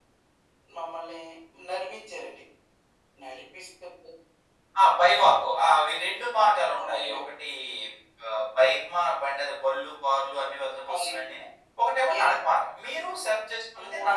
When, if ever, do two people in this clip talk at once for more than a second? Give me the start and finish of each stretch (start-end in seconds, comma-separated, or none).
none